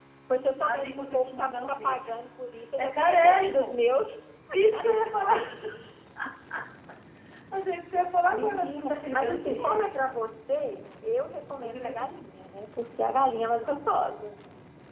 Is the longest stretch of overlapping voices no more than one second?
No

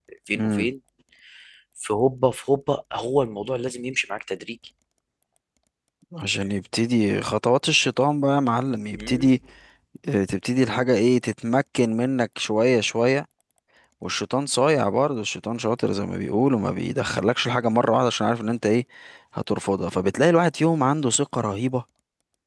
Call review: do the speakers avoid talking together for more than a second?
Yes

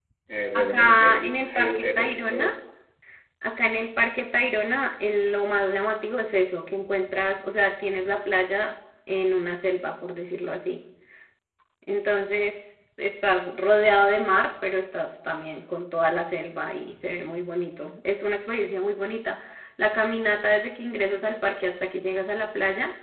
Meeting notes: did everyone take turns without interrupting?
No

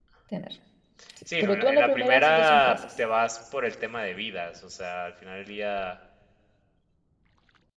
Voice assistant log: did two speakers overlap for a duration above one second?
Yes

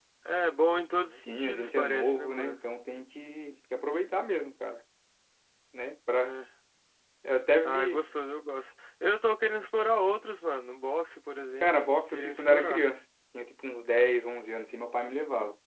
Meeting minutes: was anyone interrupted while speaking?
Yes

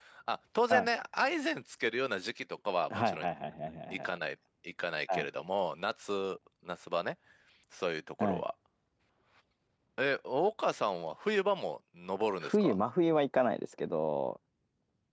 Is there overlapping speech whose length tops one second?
No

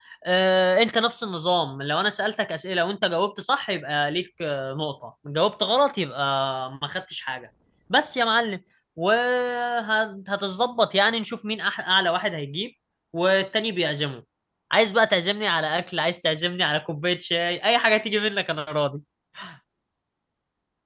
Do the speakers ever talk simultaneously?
No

